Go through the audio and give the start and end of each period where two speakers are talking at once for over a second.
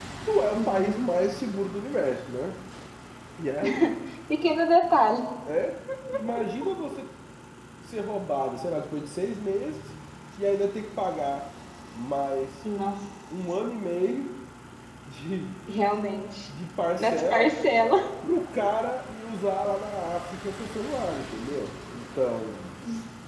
none

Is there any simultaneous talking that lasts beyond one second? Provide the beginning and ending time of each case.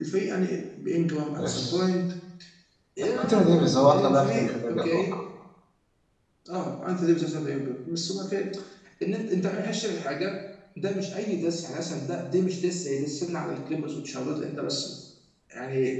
3.0-5.1

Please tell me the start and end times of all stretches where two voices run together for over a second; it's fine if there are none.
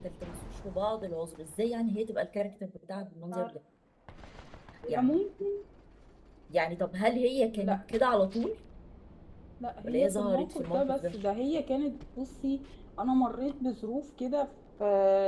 9.8-11.1

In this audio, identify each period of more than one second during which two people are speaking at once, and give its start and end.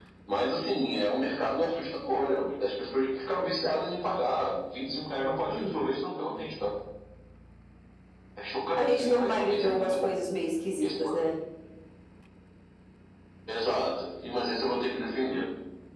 8.8-10.2

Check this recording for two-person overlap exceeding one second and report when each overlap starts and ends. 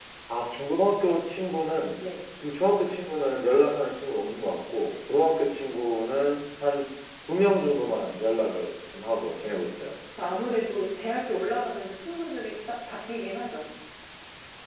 none

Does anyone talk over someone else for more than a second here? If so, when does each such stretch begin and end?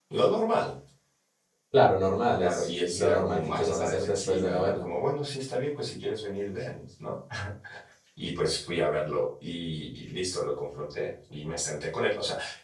2.3-4.8

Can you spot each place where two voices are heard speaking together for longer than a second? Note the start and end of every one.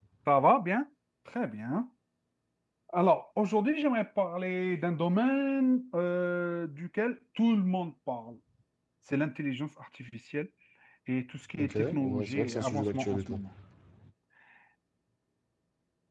11.6-13.3

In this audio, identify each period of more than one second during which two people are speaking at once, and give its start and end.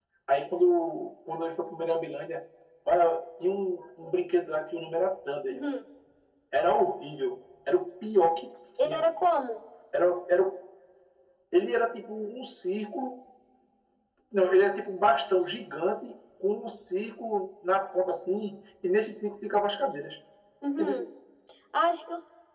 none

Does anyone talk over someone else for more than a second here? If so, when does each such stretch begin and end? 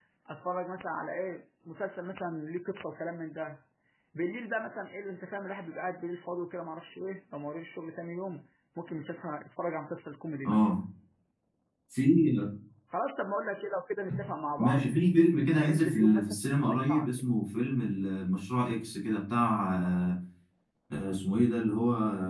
15.6-17.1

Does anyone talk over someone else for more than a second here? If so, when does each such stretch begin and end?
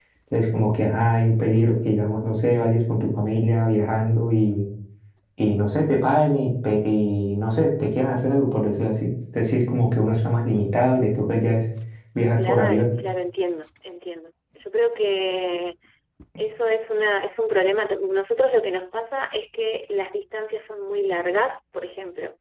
none

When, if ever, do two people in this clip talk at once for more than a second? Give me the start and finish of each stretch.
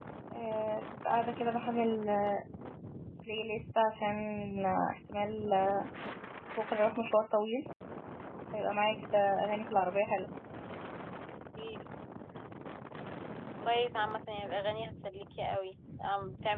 none

